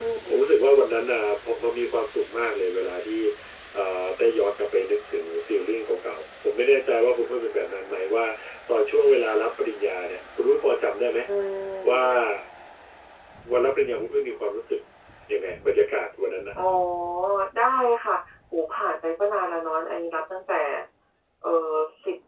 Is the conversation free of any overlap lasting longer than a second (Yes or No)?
Yes